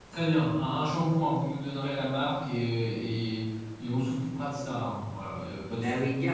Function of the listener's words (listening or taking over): taking over